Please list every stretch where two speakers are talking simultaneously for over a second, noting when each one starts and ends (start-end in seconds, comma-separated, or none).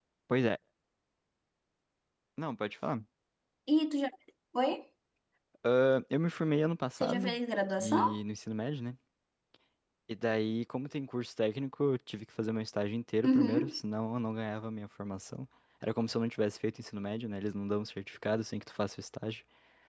none